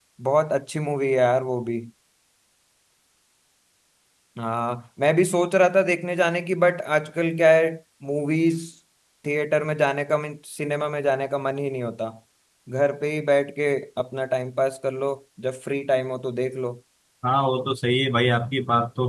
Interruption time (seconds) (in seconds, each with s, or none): none